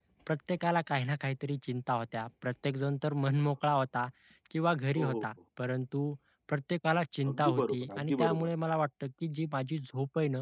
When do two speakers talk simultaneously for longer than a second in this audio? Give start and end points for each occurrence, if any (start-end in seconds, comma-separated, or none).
7.3-8.5